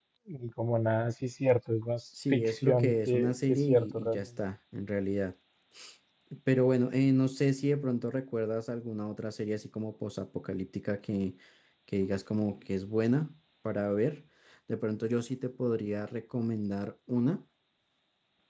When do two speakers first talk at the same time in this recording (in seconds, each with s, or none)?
2.2 s